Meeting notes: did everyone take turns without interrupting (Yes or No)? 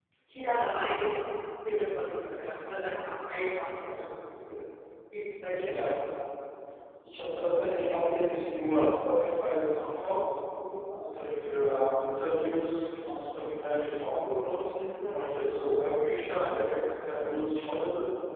Yes